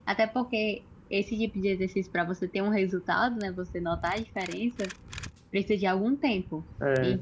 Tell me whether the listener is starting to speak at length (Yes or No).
No